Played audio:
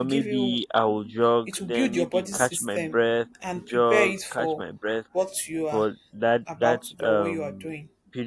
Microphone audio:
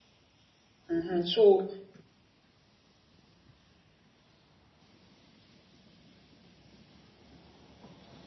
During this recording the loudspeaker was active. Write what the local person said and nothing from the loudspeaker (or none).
And so